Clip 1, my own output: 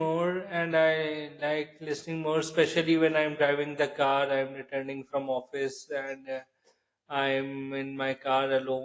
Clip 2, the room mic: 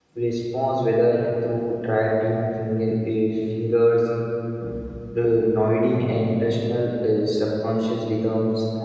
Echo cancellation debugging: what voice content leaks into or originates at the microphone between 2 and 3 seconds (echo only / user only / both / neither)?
user only